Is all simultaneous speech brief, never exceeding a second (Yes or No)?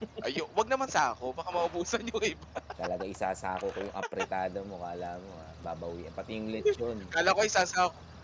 Yes